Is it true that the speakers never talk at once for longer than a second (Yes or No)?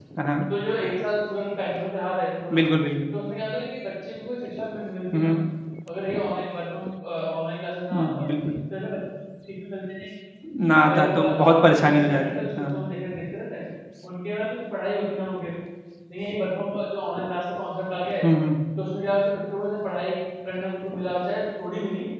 No